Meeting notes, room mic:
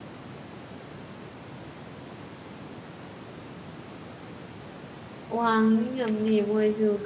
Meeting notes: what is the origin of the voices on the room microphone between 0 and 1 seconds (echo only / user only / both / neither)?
neither